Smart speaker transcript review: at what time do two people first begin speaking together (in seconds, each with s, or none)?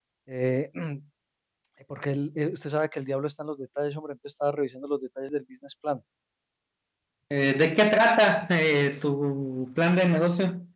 none